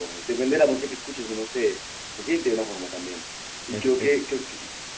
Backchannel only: Yes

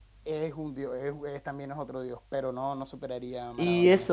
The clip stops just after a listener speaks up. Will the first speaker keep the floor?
No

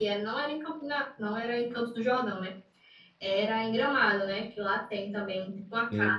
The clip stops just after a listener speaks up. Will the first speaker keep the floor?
Yes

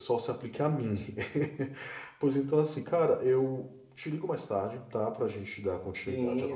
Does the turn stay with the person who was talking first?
No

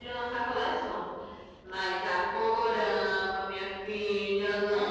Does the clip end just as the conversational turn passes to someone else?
Yes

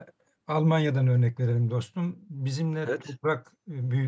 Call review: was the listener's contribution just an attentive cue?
Yes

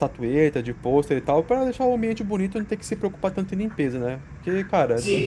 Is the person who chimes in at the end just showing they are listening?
No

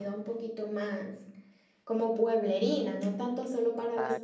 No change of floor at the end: No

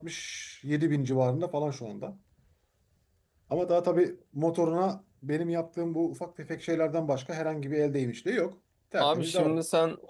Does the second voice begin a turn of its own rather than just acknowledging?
Yes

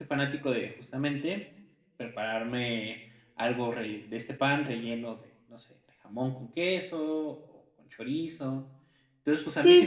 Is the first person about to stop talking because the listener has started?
Yes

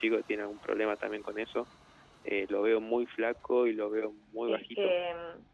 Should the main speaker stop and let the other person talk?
Yes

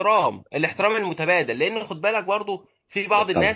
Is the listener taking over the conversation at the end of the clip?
No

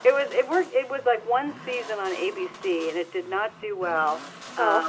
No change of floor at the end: Yes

